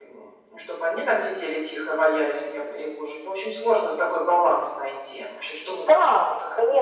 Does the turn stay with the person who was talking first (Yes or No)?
No